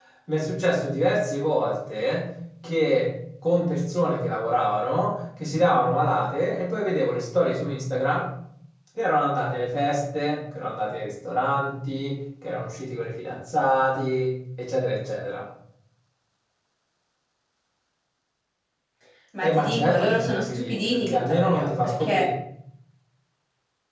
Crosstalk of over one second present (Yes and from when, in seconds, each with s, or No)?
Yes, from 19.4 s